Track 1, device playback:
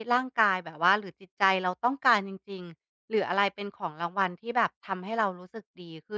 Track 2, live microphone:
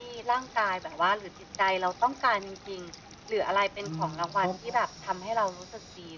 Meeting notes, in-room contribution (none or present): present